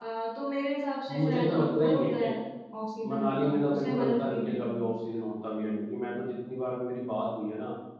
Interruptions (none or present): present